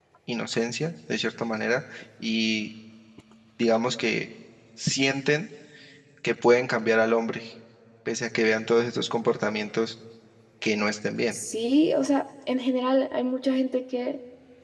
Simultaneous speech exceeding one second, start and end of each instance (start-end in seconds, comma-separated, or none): none